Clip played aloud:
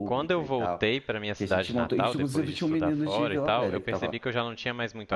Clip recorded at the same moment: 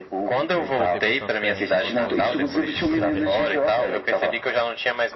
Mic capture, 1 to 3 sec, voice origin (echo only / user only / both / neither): both